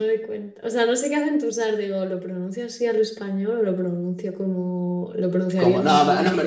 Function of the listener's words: taking over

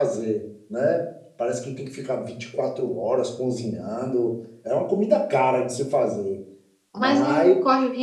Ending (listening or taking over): taking over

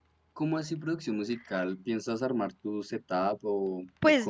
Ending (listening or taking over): taking over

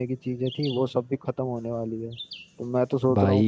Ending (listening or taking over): listening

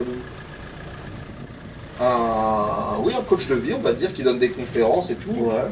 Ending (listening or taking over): listening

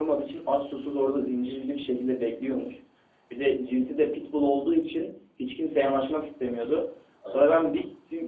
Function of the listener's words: listening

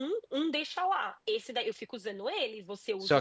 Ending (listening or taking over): taking over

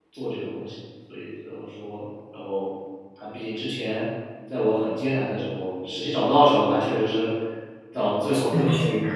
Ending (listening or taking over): listening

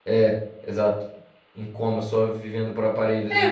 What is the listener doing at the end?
taking over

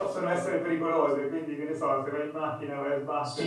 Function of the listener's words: taking over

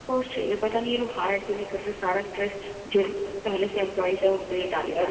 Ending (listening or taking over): taking over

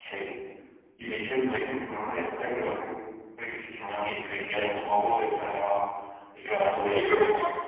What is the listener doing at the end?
taking over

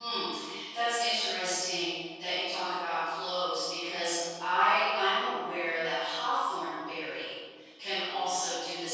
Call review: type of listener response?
listening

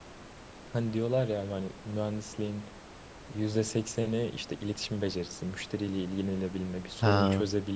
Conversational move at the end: listening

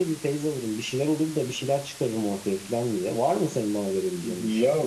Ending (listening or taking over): taking over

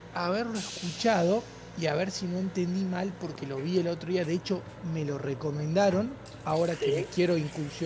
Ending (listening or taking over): listening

